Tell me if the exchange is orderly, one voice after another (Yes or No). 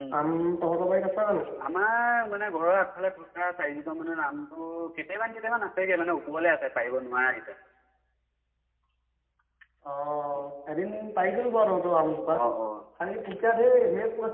Yes